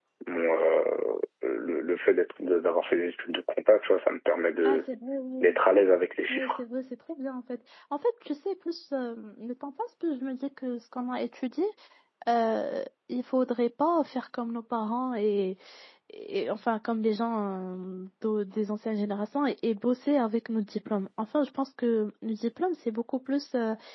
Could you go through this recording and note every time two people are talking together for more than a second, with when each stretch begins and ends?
none

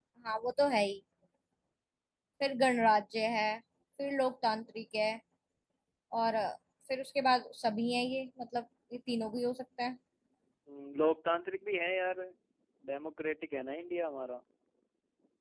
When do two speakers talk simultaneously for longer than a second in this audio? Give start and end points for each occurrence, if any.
none

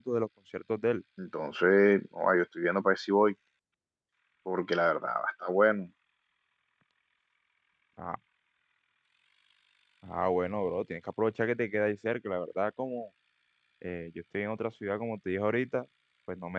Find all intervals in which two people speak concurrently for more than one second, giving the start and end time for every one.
none

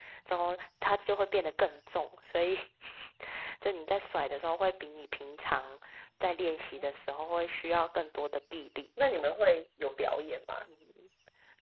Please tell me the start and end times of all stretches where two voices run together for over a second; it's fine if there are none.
none

